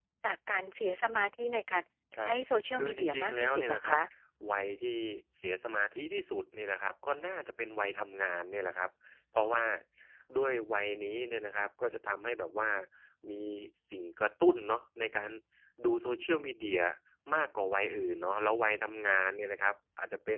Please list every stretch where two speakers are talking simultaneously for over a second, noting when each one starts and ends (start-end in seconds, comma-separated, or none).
2.7-4.0